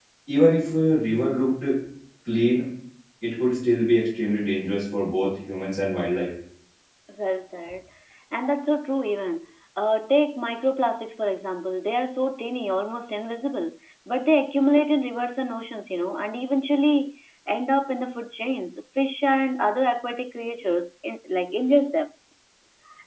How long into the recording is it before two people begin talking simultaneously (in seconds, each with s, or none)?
none